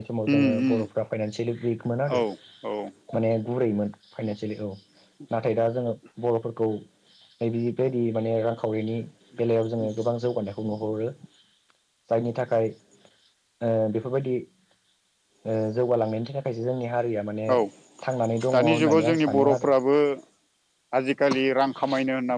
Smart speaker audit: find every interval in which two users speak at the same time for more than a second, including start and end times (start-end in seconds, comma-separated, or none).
18.5-19.7